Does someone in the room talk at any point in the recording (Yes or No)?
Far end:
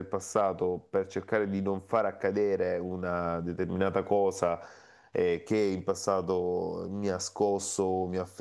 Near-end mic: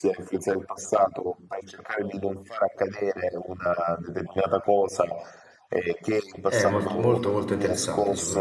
Yes